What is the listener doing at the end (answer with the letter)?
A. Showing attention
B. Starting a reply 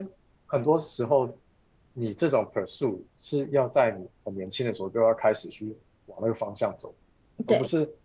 A